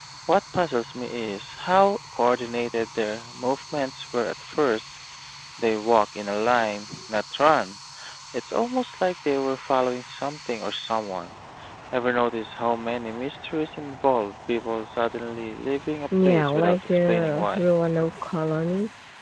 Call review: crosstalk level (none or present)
present